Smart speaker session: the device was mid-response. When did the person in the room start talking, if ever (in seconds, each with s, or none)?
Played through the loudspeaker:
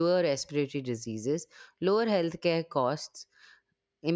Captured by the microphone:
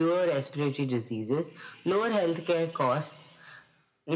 none